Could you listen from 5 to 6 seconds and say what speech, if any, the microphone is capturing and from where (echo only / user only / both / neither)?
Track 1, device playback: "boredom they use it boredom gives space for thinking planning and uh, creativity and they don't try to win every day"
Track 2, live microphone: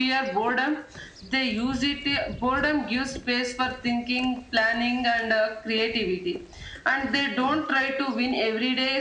echo only